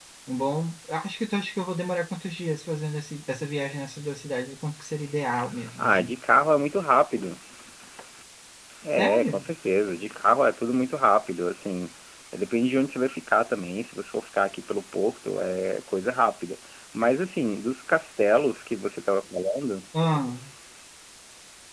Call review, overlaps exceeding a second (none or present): none